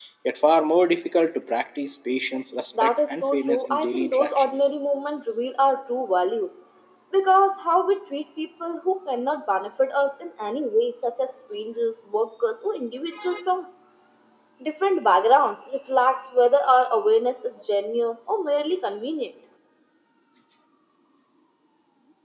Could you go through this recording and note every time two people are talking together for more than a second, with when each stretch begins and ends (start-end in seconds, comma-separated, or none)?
2.8-4.7